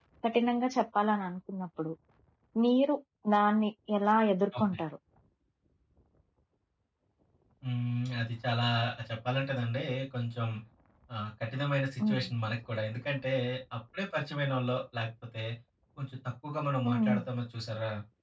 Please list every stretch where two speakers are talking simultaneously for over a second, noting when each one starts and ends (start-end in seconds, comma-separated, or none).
none